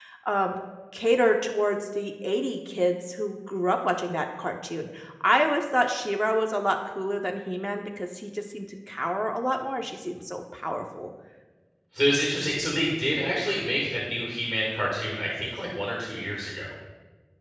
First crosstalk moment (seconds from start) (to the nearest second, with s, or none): none